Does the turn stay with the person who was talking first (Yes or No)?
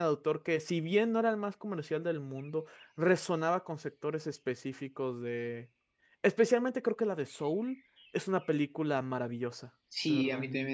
No